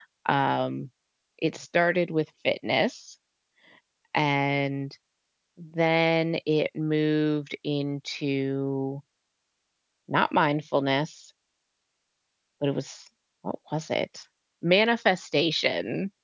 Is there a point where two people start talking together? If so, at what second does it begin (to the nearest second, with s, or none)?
none